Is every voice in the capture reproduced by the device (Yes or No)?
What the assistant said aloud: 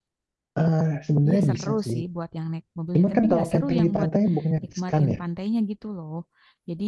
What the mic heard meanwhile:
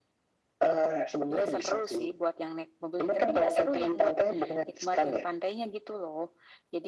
Yes